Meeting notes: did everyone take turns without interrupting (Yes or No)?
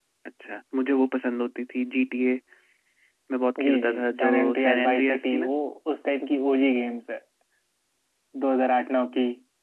No